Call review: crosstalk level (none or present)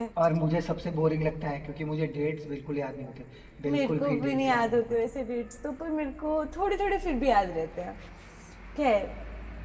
present